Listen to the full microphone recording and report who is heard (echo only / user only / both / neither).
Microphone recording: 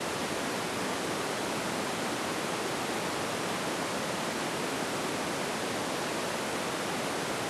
neither